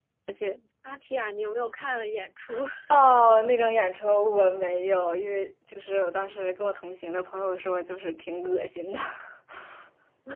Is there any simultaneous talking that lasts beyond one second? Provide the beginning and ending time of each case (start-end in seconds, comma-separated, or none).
none